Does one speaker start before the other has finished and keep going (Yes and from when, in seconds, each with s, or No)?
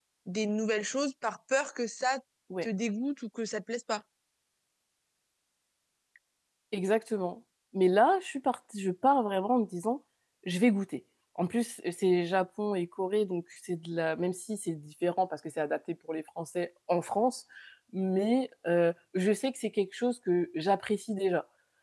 No